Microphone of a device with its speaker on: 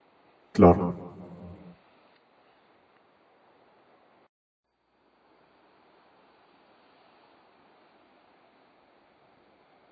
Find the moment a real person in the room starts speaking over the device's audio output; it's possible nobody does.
1 s

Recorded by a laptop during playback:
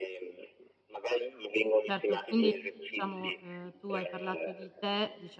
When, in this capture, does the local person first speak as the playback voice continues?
2 s

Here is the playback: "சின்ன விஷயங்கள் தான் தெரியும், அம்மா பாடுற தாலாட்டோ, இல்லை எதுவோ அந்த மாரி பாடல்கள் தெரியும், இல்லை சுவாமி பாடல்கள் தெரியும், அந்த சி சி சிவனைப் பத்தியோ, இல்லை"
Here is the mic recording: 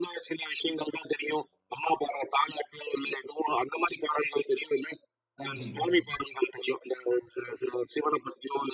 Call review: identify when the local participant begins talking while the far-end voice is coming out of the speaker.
5 s

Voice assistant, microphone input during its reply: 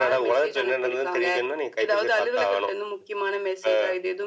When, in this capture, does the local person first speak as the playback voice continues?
none

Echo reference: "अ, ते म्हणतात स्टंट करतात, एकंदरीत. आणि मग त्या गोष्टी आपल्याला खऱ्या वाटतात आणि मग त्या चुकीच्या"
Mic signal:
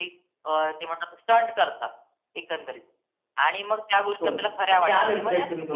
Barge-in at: 4 s

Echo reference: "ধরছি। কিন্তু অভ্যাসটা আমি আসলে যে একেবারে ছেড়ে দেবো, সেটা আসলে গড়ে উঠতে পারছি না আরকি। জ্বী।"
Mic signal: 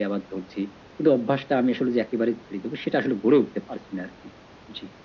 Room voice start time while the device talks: none

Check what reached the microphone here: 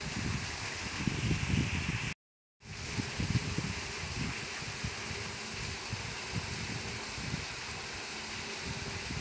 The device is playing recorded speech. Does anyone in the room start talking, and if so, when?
none

